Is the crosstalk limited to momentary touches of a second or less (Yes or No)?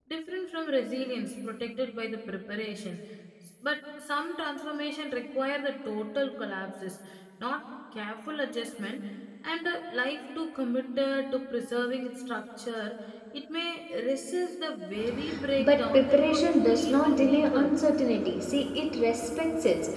No